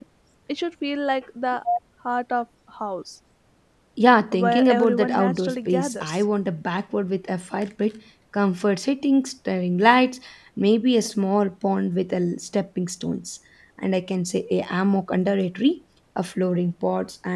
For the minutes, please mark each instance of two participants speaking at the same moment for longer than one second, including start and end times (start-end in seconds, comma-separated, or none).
4.3-6.2